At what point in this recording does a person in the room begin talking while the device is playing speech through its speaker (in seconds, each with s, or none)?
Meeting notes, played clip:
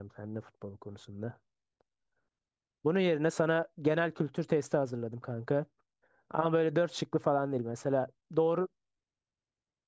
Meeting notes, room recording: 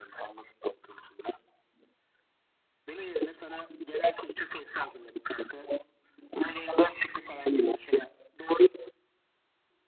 none